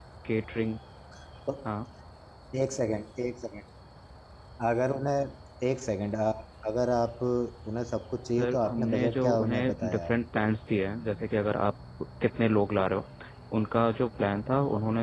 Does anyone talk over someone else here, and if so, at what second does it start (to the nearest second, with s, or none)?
8 s